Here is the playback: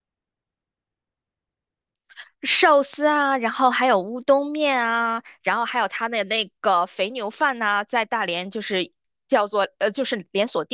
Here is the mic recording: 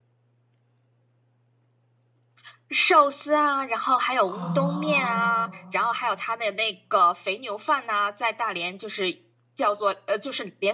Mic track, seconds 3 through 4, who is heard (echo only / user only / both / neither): echo only